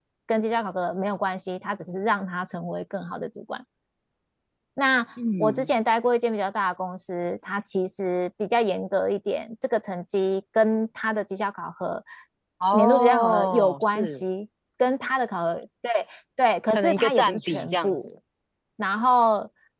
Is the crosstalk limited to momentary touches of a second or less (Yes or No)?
No